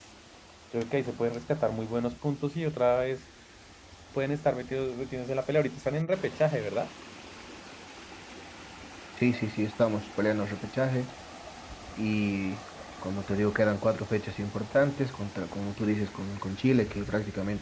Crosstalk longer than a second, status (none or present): none